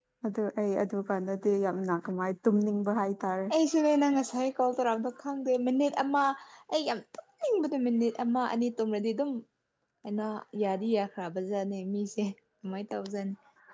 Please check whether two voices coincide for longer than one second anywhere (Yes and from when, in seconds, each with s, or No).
No